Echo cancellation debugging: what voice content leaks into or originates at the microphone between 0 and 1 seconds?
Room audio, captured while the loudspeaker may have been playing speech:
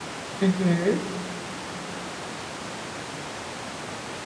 user only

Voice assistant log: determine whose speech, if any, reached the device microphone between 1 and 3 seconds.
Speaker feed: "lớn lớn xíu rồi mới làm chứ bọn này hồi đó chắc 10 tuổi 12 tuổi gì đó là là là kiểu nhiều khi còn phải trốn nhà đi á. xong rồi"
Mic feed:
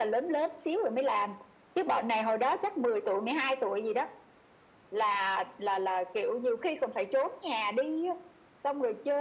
echo only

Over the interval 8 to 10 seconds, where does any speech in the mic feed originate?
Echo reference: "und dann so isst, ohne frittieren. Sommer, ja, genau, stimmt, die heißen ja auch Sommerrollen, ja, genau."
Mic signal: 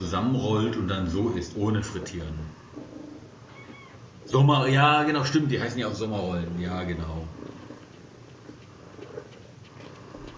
neither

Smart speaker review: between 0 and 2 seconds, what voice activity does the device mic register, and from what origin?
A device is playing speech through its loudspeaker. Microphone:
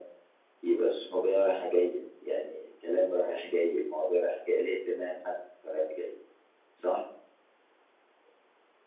echo only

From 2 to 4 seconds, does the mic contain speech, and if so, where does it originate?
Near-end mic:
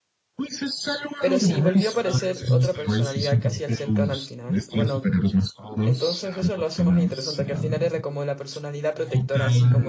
both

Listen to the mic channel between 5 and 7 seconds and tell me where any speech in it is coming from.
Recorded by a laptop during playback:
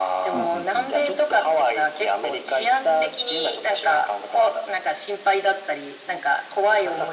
echo only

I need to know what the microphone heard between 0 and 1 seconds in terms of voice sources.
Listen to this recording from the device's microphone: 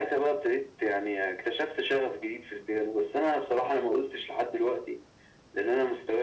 echo only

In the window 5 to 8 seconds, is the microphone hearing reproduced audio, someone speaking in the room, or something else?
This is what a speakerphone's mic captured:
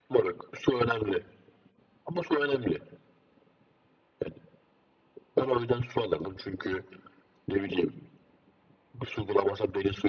echo only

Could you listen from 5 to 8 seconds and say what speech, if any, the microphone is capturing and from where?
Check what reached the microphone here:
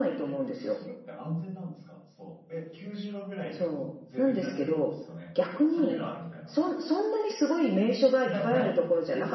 both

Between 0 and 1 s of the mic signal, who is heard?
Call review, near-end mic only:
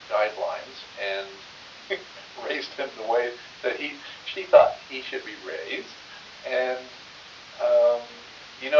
echo only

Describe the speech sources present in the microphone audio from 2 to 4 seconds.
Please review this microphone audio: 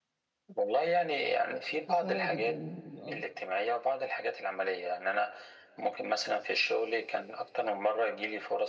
both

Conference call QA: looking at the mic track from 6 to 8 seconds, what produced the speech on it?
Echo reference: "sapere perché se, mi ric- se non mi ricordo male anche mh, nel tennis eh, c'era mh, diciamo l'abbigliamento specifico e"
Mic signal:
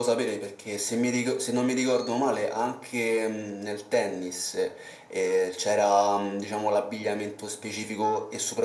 echo only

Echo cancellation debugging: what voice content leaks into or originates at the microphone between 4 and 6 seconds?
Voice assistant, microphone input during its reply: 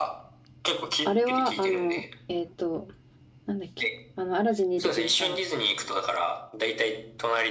both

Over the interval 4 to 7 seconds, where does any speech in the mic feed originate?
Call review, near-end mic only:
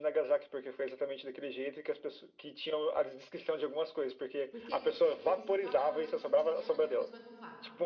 both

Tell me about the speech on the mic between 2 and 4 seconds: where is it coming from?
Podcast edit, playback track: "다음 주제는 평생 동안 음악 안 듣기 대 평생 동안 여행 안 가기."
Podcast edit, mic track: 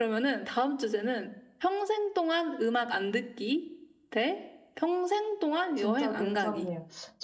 echo only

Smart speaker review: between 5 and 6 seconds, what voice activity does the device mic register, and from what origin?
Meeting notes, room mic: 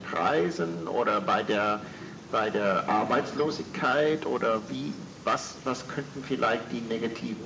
echo only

